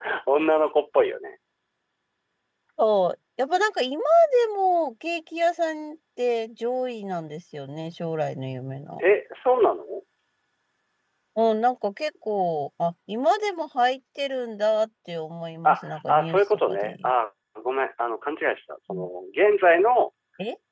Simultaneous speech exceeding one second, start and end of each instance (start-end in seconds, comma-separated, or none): 15.6-17.1